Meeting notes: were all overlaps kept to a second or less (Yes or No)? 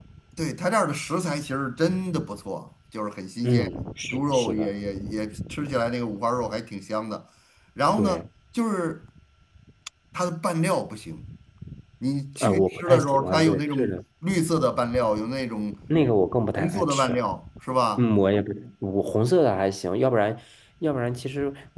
No